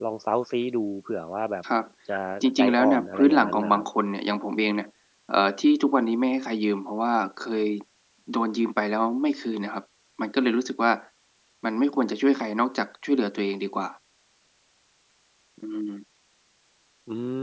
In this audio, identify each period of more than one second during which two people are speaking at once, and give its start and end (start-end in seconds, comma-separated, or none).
2.6-3.8